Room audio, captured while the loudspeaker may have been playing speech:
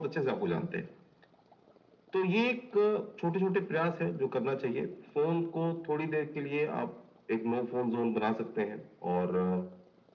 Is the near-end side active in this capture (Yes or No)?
No